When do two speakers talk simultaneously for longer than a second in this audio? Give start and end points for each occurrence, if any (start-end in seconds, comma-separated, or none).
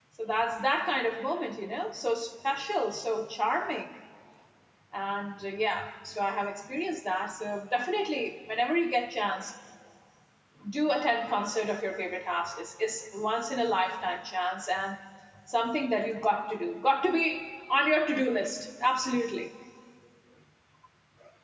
none